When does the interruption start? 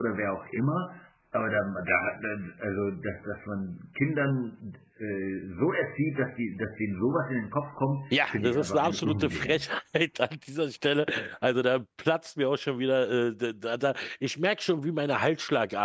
8.1 s

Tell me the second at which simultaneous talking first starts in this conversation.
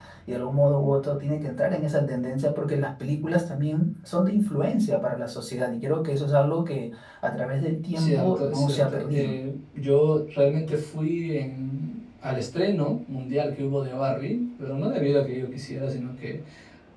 8.0 s

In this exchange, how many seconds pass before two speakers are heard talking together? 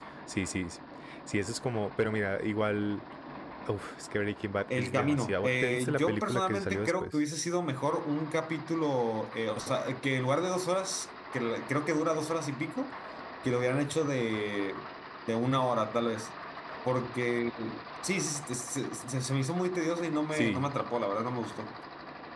4.8 s

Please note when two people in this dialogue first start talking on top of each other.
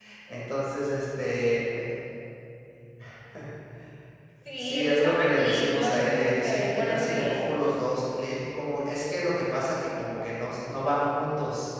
4.6 s

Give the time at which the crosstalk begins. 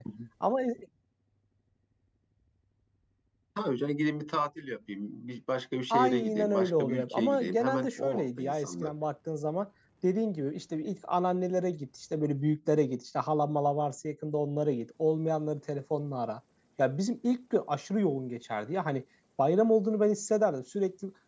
5.9 s

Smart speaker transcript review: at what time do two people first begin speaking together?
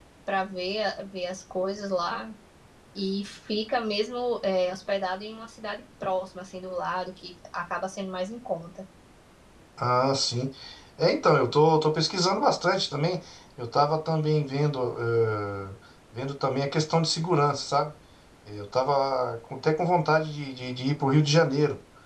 none

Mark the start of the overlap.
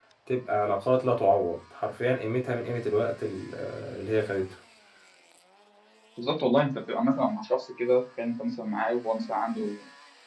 none

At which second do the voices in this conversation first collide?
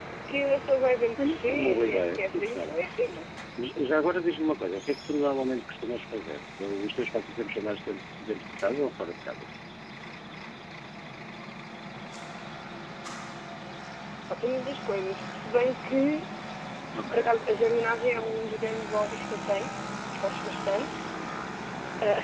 1.2 s

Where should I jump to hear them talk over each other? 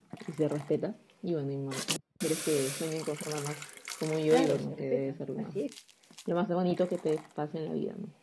4.3 s

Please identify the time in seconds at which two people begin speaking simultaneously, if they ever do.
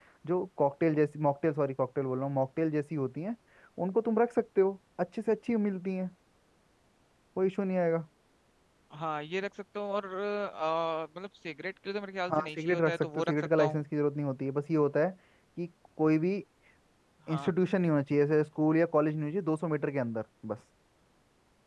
12.3 s

